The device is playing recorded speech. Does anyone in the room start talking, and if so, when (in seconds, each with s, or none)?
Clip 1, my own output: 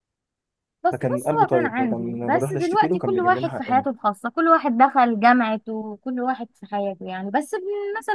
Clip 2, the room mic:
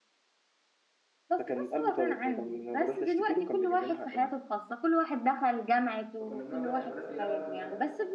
6.2 s